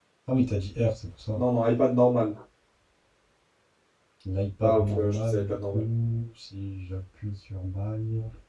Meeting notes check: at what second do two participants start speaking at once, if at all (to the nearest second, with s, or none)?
5 s